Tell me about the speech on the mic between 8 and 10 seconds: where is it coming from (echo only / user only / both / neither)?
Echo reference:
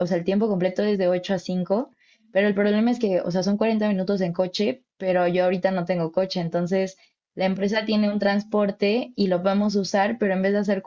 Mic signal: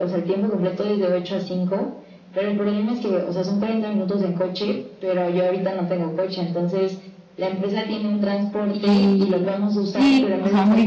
both